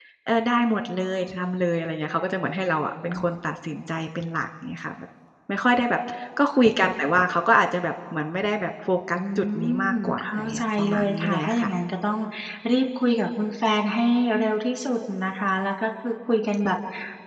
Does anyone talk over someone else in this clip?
Yes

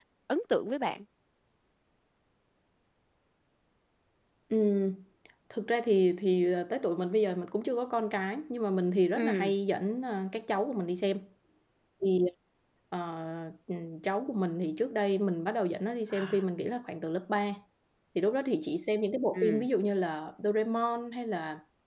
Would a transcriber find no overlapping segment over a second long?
Yes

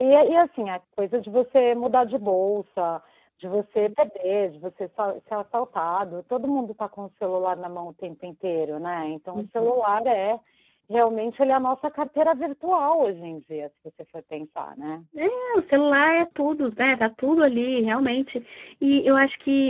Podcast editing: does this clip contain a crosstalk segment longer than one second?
No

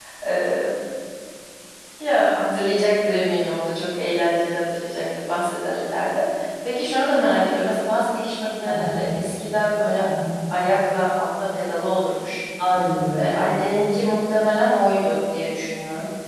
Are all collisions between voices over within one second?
Yes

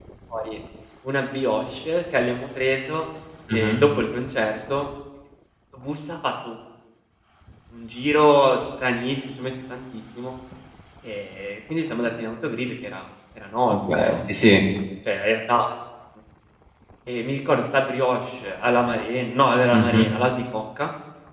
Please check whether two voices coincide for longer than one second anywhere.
No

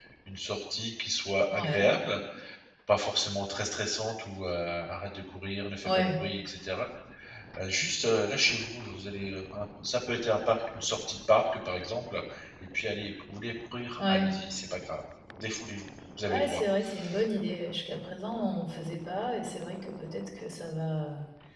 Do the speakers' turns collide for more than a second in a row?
No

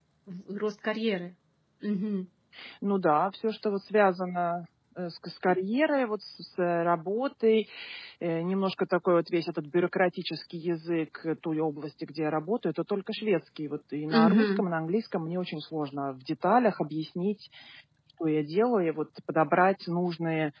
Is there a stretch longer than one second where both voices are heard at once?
No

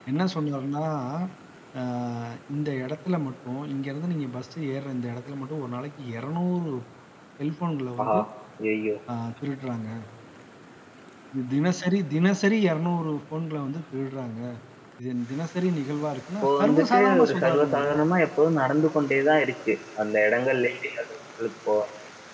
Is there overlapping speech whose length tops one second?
Yes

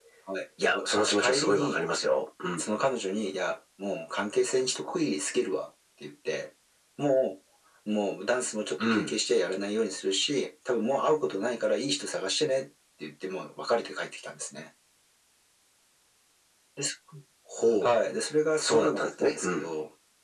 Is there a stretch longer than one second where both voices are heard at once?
Yes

